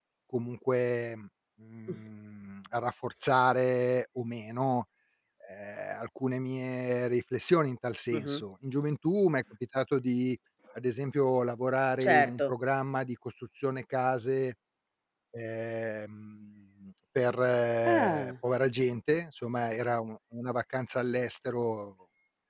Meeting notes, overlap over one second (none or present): none